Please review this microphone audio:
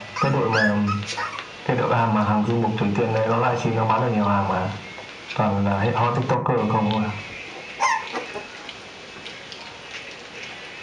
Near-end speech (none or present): none